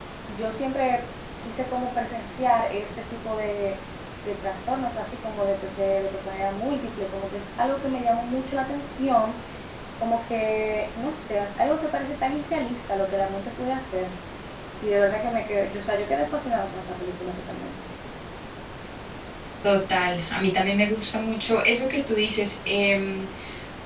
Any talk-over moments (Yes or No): No